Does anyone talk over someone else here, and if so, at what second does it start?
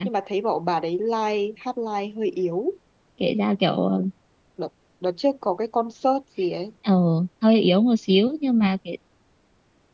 none

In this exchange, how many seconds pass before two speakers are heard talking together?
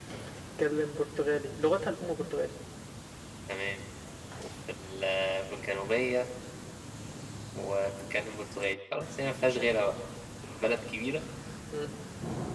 none

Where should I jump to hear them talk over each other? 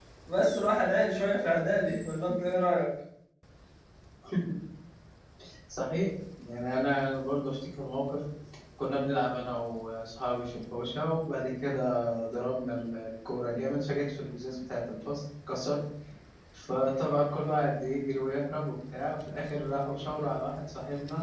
none

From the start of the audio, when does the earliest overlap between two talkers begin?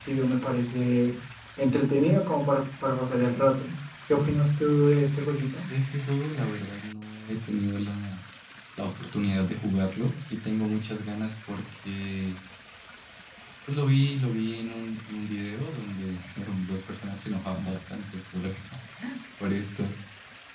none

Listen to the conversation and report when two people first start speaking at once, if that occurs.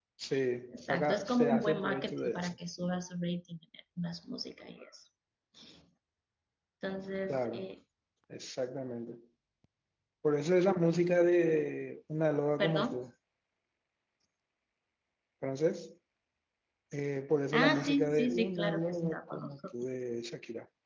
0.7 s

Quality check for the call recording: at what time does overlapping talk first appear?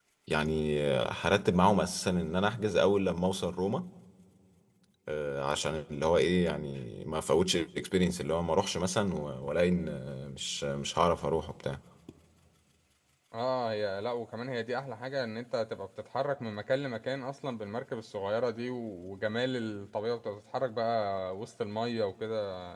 none

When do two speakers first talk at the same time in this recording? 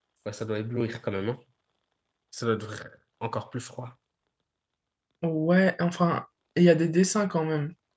none

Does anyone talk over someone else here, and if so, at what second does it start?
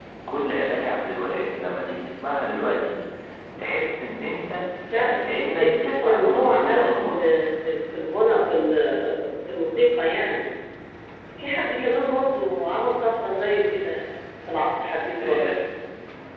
4.9 s

